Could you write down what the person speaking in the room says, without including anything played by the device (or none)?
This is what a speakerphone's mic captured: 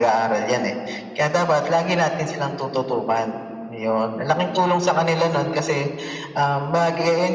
none